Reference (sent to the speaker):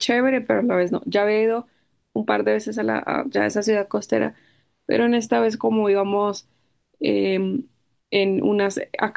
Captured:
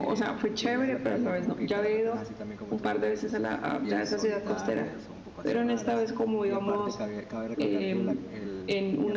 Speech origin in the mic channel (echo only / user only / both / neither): both